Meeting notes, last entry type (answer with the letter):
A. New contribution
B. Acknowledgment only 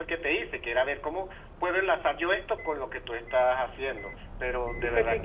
A